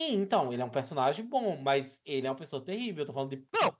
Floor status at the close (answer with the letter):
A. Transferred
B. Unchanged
A